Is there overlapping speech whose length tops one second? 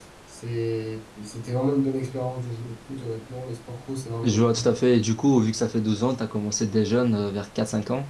No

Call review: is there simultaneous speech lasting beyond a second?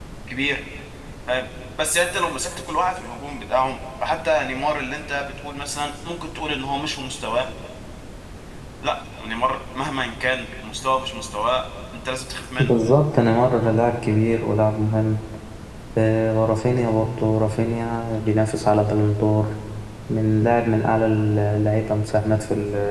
No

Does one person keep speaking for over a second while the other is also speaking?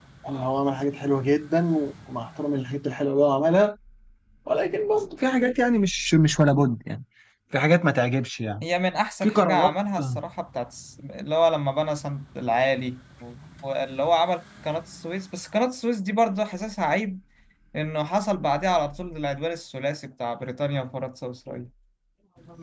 No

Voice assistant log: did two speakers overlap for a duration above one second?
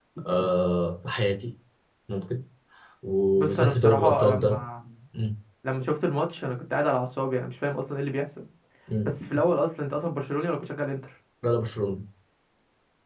Yes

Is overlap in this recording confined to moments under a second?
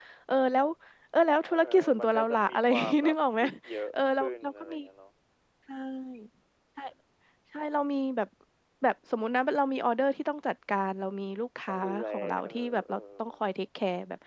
No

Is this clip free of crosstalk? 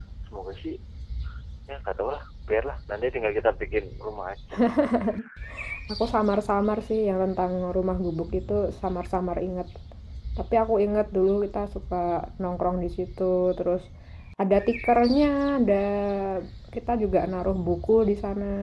Yes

